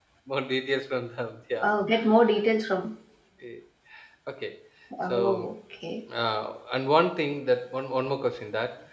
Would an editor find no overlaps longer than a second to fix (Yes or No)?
Yes